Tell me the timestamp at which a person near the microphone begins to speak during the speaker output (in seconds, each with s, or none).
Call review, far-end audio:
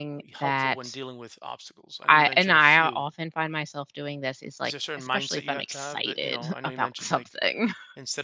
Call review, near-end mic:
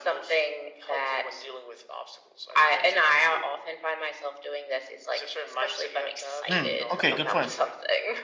6.5 s